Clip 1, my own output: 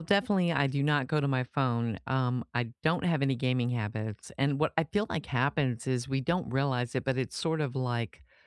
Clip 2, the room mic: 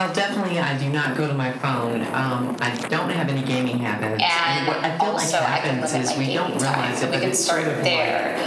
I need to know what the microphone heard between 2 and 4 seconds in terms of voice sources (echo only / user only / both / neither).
echo only